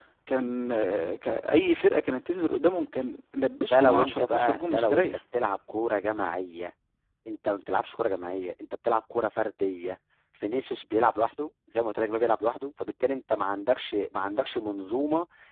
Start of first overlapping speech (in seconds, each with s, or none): 3.7 s